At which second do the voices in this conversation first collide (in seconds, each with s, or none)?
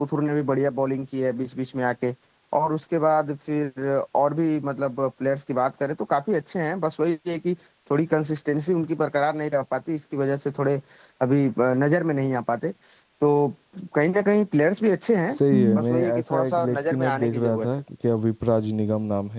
15.4 s